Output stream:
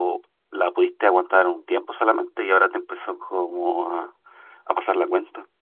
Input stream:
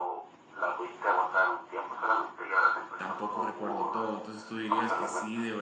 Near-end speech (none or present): present